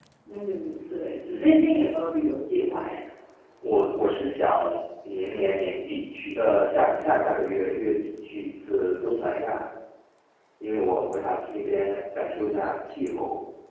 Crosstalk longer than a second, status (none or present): none